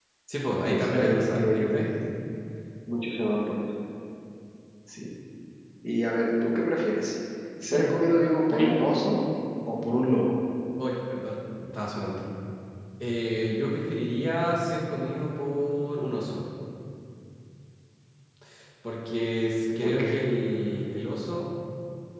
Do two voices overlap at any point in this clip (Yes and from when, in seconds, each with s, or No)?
Yes, from 0.7 s